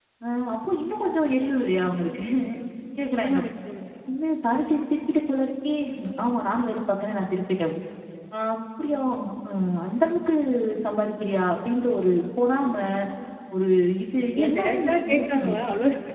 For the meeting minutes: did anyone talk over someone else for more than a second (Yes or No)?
Yes